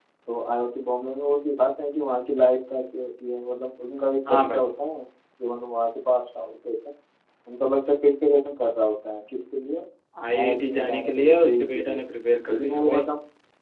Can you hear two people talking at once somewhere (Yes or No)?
Yes